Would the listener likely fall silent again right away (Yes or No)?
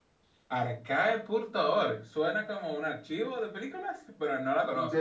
No